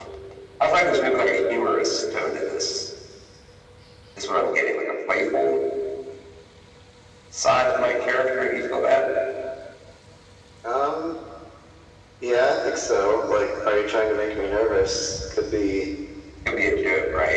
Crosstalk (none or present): none